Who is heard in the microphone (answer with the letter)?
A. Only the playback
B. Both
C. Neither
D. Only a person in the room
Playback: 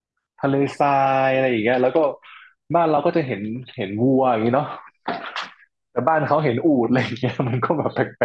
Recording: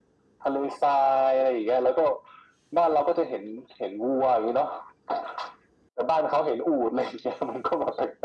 A